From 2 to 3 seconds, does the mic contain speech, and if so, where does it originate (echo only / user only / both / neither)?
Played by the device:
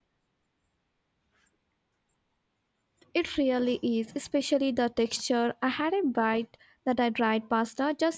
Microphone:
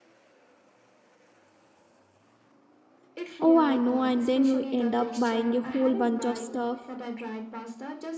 neither